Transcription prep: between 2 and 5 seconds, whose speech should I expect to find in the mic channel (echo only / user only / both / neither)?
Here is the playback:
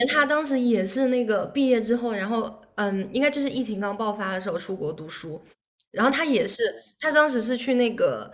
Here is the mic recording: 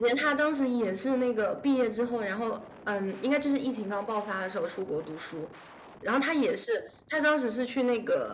echo only